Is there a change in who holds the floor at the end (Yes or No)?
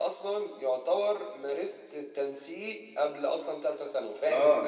Yes